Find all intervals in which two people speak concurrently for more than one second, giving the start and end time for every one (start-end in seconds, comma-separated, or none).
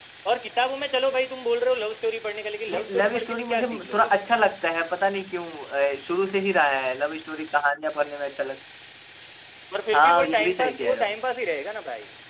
2.7-4.3, 9.9-11.2